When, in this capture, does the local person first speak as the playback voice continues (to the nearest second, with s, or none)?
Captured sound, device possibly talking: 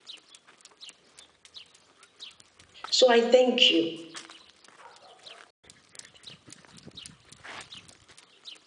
3 s